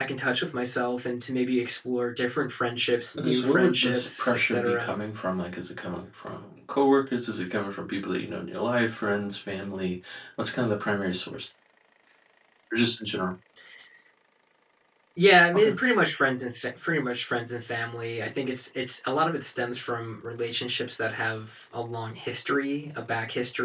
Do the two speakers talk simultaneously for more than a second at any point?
Yes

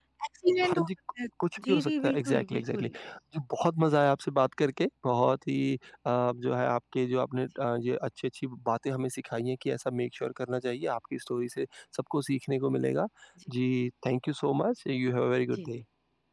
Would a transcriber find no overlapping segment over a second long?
No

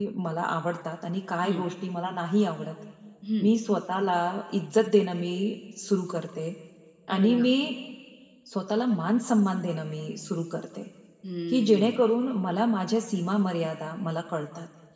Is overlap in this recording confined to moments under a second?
Yes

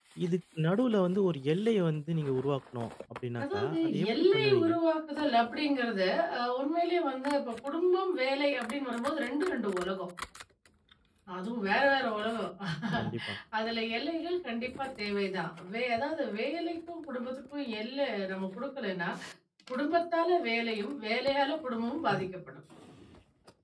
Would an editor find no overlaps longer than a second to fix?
No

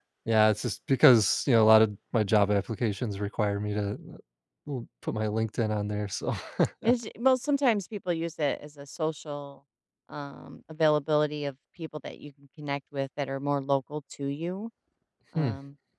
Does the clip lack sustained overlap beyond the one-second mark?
Yes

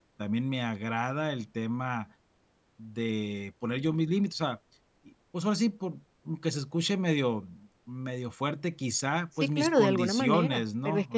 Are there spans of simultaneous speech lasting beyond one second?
Yes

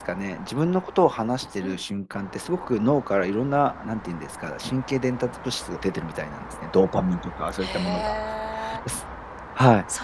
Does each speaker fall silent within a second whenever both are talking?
Yes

